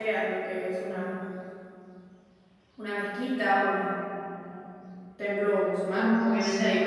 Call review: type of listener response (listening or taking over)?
listening